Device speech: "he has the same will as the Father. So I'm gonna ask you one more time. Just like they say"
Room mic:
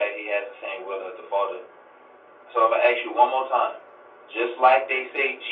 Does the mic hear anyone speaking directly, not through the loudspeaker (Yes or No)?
No